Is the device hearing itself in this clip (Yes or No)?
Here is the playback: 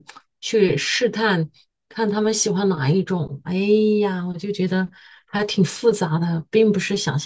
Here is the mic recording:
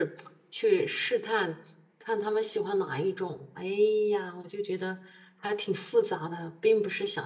Yes